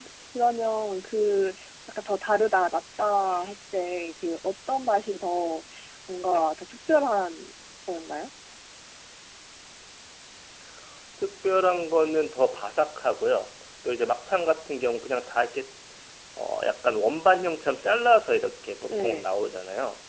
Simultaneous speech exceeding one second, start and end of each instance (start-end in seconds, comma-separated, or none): none